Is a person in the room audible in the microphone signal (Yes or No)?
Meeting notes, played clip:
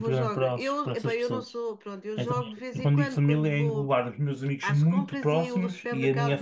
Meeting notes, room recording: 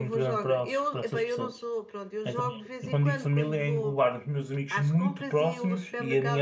No